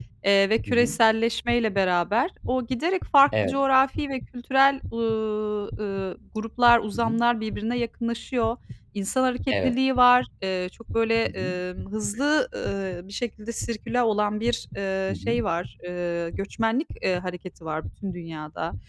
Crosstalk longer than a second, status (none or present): none